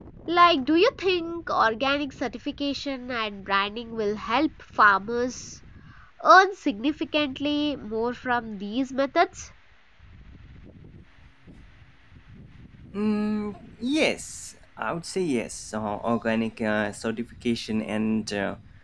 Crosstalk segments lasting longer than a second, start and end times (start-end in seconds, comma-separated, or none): none